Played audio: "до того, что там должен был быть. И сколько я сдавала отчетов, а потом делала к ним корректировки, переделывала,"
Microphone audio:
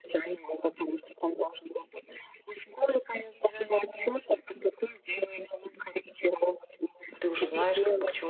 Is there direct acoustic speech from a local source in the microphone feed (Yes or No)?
Yes